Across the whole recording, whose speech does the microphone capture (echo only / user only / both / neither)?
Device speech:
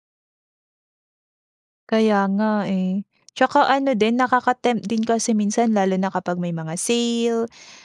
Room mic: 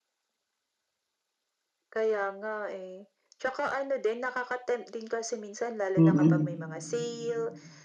both